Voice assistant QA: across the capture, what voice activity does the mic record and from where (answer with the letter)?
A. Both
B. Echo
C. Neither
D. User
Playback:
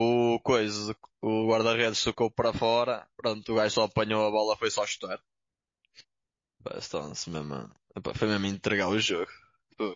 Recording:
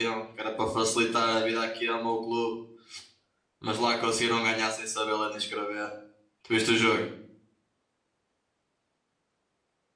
D